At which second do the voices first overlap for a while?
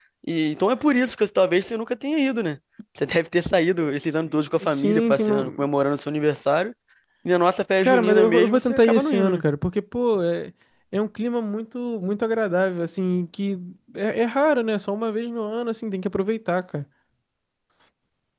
4.2 s

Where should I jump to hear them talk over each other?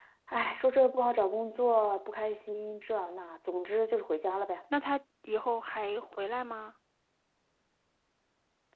none

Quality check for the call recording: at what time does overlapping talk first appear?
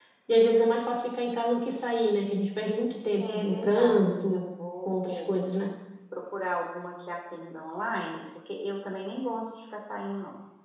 3.2 s

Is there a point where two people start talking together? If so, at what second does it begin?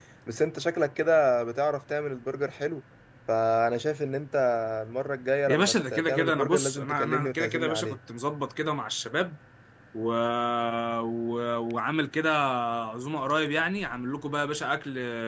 5.5 s

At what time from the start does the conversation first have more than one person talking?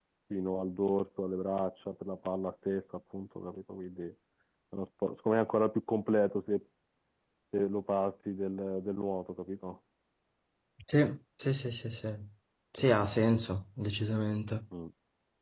none

